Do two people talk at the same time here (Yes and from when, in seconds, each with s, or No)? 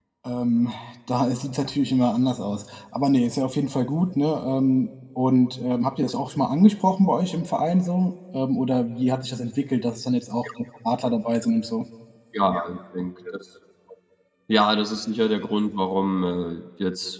No